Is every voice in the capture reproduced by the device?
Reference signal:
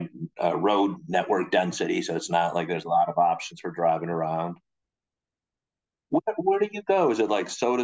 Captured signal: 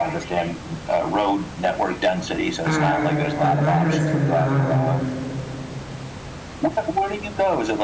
No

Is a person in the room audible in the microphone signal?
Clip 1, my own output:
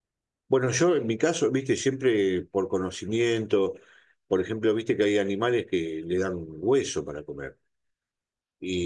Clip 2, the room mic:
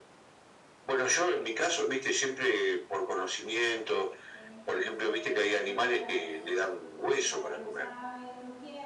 Yes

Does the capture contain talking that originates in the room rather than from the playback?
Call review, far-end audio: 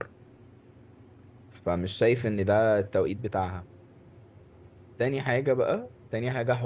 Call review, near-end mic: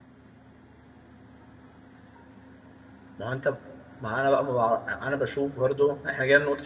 Yes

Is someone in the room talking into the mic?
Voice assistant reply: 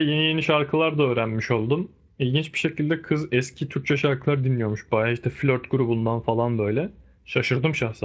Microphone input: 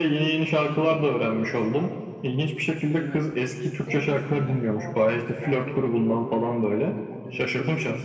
Yes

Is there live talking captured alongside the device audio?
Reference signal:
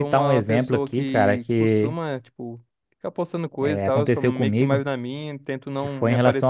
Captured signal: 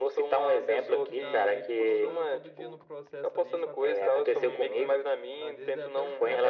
Yes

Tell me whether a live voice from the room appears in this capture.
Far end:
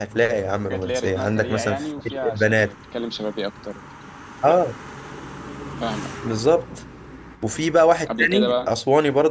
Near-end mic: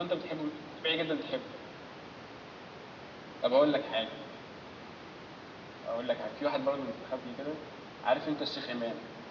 Yes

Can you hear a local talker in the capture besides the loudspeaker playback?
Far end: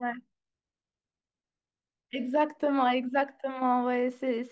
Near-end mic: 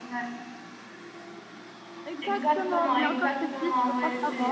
Yes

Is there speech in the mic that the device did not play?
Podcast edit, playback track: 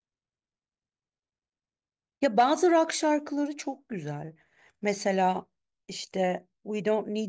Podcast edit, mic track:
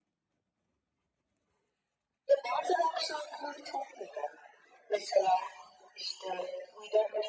No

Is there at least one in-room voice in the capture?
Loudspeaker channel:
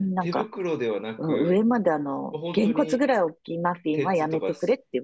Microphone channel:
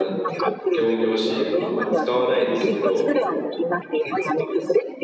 Yes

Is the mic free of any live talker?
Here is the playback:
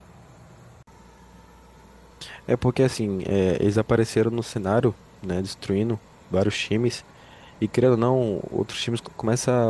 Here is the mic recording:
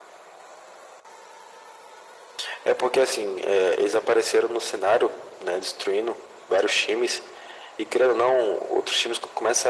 Yes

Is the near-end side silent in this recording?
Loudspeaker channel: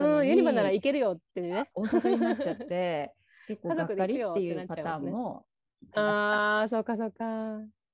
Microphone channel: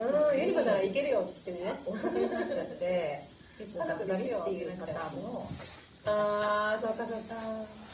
Yes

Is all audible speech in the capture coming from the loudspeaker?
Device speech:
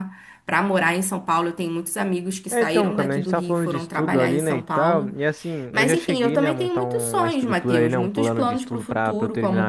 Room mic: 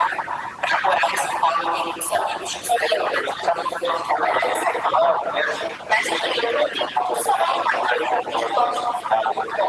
Yes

